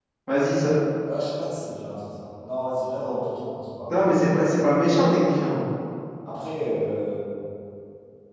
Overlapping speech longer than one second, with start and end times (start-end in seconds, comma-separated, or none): none